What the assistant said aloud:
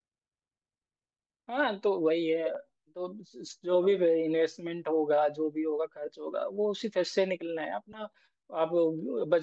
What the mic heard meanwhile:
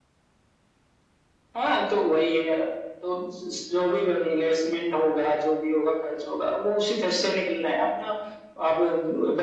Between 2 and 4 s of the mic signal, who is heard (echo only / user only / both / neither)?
echo only